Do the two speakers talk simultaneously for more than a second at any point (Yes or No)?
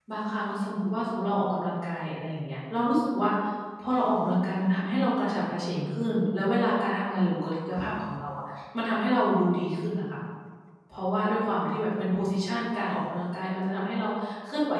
No